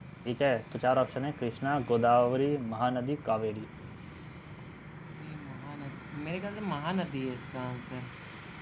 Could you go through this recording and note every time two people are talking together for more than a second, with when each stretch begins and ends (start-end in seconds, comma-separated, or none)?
none